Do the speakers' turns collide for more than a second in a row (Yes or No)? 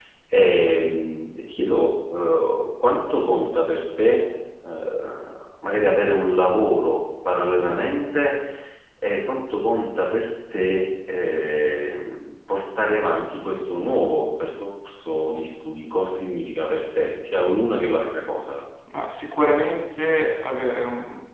No